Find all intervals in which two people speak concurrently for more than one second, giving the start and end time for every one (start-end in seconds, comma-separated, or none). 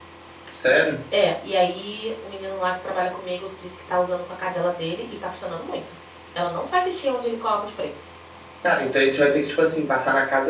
none